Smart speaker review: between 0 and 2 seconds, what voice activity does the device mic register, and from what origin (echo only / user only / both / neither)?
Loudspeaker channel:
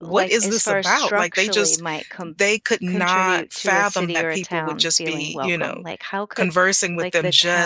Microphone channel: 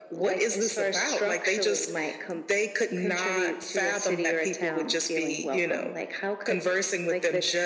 echo only